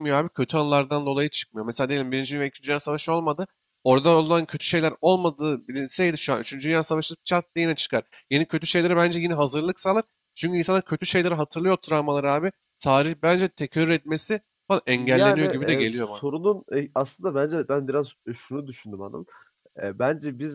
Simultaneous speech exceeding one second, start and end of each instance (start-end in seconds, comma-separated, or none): 15.0-16.2